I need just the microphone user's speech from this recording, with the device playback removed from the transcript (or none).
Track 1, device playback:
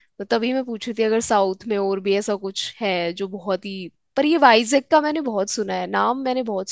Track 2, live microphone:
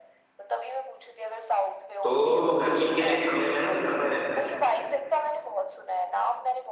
तो गर्मी के समय में ना ज्यादा रहता है